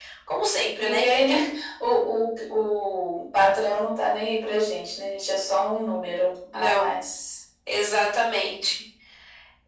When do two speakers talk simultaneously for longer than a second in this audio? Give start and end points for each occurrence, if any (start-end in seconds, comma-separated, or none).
none